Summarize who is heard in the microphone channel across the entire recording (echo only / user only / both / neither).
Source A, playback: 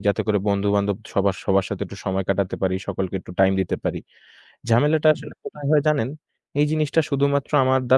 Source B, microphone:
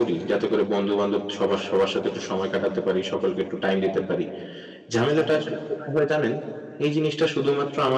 echo only